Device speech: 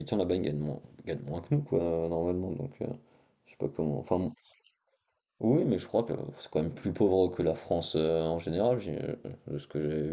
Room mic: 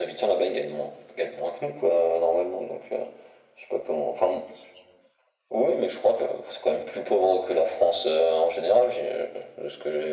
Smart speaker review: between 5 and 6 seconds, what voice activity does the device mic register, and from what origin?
echo only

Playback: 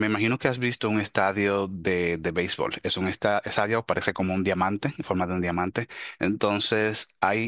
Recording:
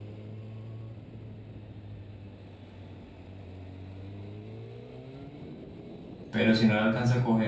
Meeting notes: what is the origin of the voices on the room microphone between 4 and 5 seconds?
neither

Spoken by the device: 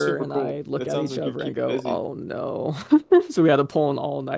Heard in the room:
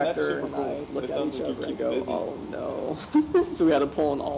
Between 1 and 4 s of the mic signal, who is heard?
echo only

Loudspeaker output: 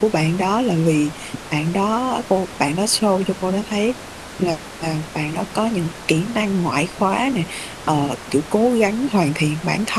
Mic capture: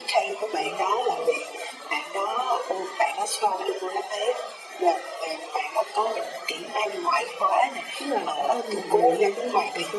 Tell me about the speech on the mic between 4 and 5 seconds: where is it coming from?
echo only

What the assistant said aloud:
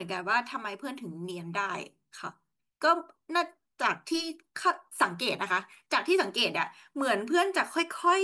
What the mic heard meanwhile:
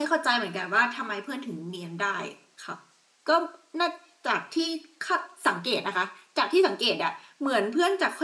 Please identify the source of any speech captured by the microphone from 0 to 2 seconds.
echo only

